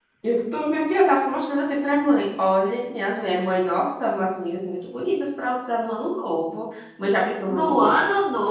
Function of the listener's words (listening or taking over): taking over